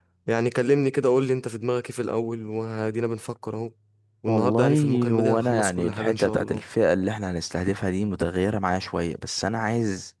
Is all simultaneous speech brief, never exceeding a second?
No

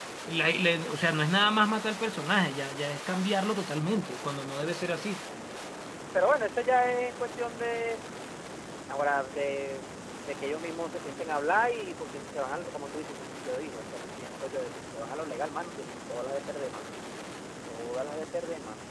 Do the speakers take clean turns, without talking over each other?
Yes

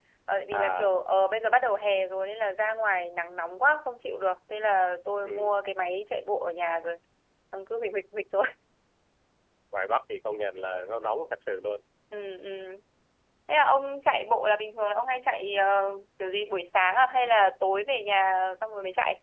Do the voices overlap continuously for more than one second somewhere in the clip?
No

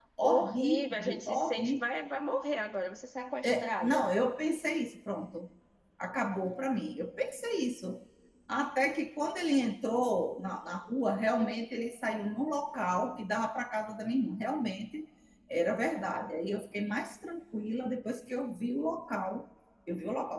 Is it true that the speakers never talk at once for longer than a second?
No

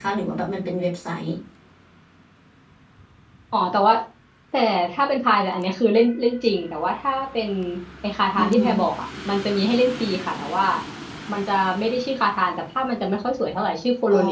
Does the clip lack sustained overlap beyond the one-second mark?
Yes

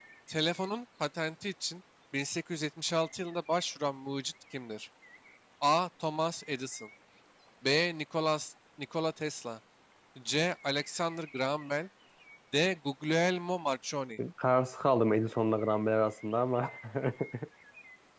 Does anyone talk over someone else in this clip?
No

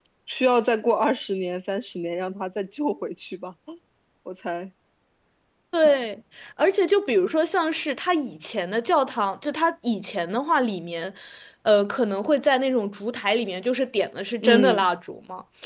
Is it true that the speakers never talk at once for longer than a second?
Yes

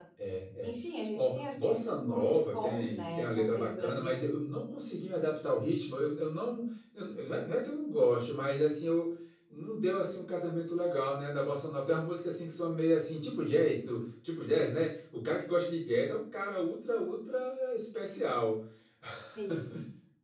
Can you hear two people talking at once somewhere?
Yes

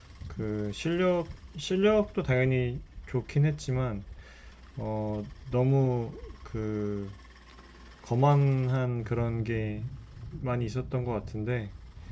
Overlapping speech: No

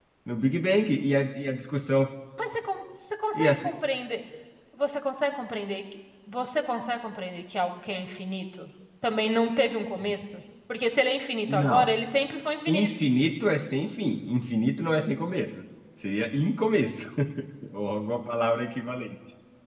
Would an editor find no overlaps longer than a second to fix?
Yes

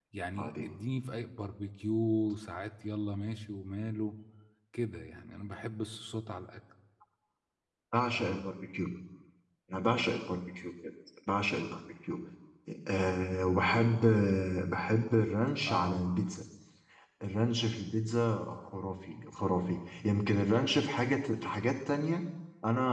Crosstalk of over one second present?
No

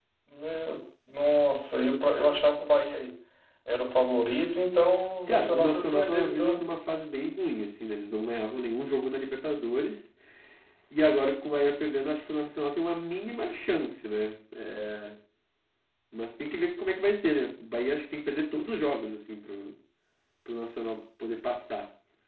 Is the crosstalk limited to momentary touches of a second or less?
No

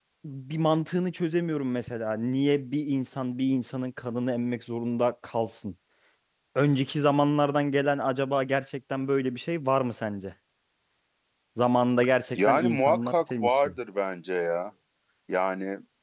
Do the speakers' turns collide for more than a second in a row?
Yes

